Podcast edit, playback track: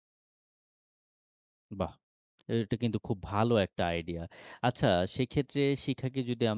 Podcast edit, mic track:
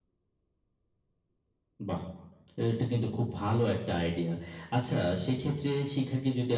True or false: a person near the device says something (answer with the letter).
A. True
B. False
B